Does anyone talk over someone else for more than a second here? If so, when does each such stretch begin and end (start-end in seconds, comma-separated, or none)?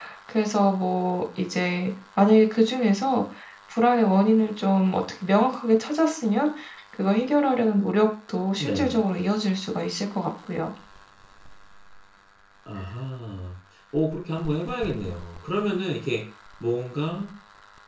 none